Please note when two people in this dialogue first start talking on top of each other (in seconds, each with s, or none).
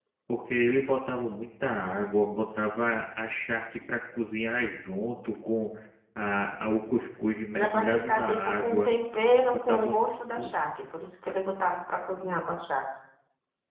7.5 s